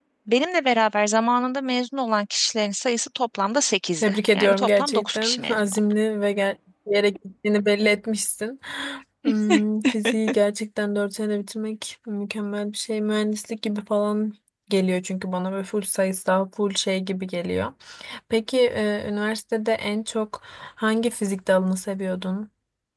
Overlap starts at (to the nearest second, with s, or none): 4 s